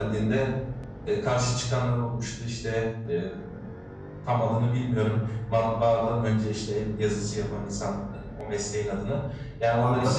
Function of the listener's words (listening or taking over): listening